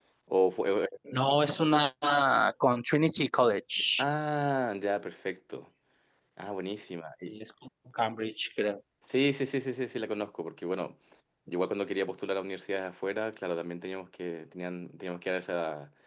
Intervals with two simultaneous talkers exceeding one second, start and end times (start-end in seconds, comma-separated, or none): none